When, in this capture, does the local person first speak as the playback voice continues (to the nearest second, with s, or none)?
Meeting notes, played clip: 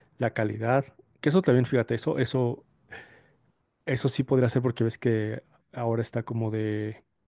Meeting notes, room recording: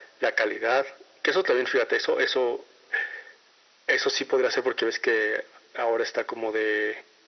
none